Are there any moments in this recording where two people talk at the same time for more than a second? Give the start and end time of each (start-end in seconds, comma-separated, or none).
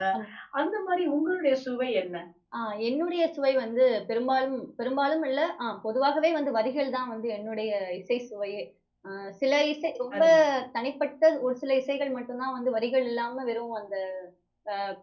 none